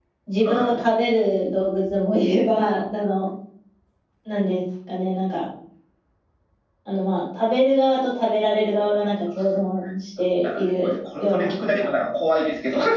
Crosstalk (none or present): present